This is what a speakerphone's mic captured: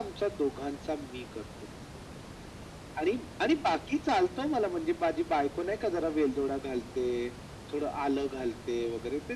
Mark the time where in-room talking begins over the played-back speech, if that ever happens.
none

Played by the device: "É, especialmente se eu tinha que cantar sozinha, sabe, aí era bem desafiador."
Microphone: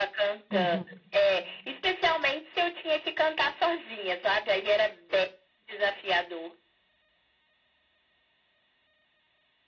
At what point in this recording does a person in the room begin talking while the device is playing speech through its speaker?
0.5 s

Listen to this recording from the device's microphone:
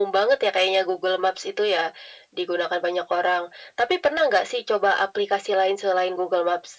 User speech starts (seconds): none

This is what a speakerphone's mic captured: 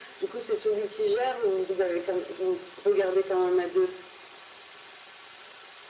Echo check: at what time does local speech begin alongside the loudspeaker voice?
none

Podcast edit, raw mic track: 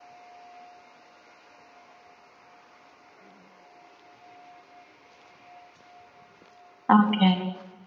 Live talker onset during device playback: 7.0 s

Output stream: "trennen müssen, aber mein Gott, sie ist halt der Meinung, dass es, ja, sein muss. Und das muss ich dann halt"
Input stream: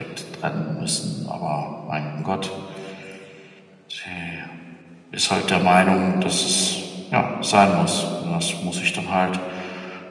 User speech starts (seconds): none

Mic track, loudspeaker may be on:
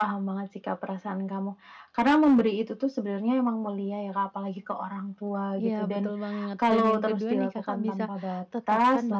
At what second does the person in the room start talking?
5.5 s

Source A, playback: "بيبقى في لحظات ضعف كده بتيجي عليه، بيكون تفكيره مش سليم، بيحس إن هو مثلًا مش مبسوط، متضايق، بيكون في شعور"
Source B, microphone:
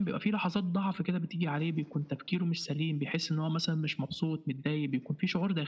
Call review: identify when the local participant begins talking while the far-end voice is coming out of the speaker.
none

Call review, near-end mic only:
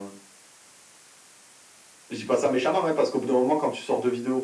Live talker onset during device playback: none

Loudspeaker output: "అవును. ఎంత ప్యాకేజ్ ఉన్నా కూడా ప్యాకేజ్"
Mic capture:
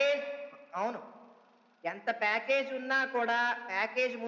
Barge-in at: none

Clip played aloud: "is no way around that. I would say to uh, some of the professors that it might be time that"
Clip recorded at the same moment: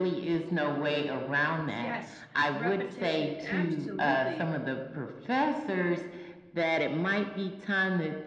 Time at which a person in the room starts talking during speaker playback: 1.8 s

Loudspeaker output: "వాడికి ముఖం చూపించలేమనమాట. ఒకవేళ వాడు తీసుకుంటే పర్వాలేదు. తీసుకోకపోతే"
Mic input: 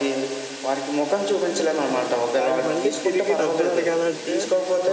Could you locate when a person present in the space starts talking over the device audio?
2.4 s

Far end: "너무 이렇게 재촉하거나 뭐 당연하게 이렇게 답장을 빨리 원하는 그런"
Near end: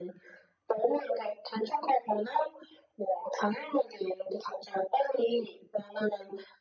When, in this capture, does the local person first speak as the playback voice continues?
none

